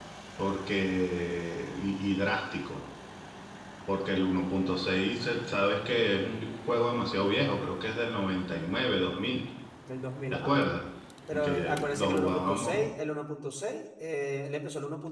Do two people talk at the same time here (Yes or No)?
Yes